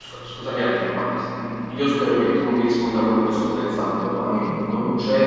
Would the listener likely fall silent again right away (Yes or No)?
Yes